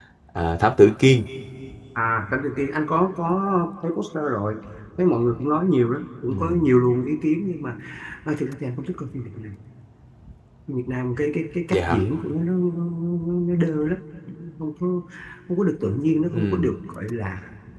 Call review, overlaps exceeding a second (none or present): none